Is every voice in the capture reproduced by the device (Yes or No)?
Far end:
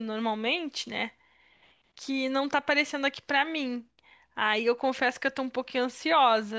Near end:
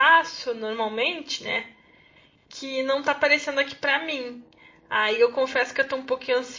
Yes